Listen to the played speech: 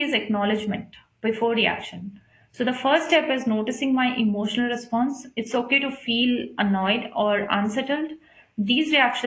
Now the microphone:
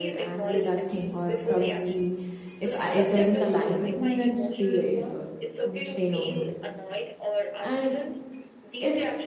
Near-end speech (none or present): present